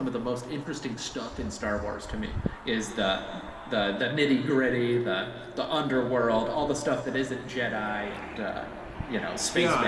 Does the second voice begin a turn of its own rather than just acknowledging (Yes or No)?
Yes